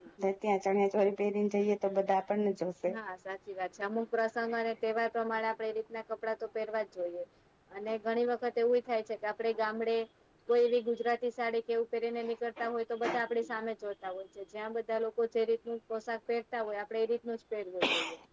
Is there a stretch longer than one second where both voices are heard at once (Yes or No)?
No